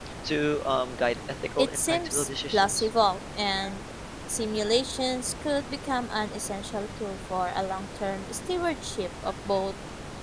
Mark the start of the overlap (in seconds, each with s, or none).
1.6 s